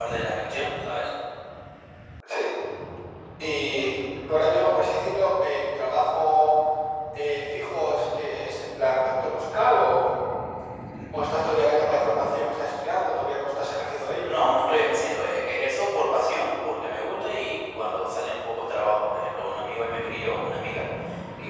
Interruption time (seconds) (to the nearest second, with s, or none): none